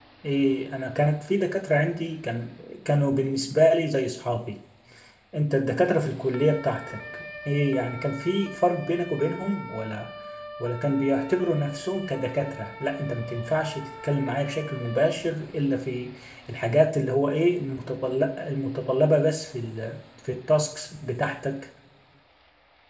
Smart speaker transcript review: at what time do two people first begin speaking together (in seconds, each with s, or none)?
none